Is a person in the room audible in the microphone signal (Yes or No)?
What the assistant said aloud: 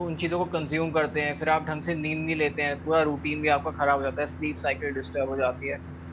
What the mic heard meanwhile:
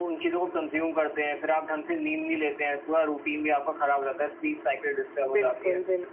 Yes